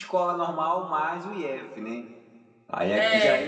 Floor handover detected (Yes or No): No